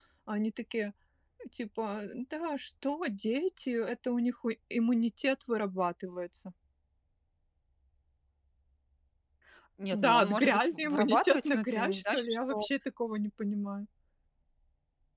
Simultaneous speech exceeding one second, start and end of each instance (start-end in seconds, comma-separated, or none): 9.9-12.7